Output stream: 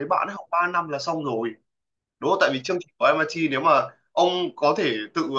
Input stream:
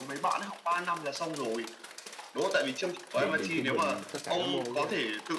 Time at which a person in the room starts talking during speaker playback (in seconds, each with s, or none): 3.1 s